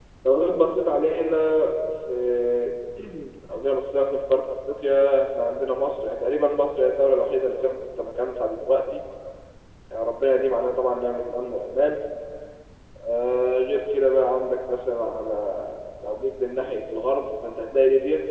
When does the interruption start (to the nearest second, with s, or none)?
none